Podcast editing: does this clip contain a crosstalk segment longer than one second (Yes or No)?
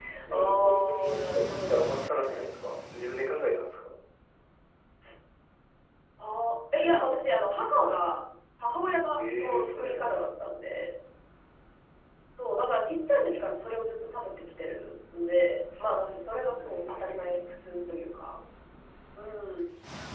Yes